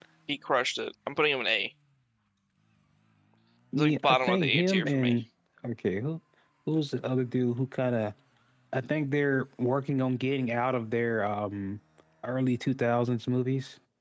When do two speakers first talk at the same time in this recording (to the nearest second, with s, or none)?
4 s